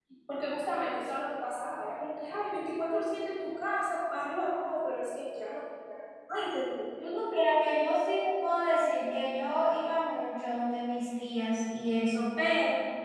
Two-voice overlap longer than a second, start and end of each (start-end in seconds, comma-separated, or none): none